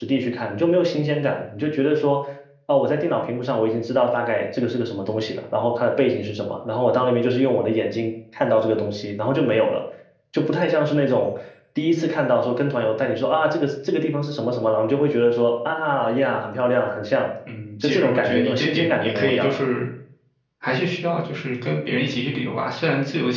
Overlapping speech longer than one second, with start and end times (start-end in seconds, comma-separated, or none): 17.8-19.6